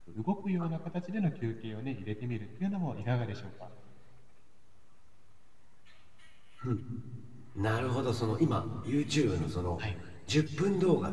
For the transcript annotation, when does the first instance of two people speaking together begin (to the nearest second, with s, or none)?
none